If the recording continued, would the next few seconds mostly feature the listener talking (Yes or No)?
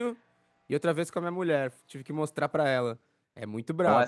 Yes